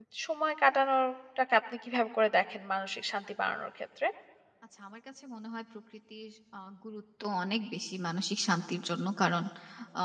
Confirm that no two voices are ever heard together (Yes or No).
Yes